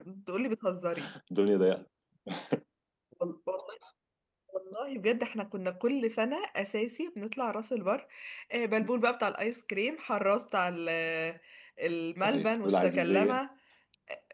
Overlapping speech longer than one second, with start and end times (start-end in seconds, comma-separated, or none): 12.2-13.4